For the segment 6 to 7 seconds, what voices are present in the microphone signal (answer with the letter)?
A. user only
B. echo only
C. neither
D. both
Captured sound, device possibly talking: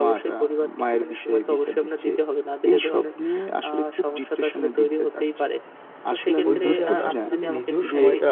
D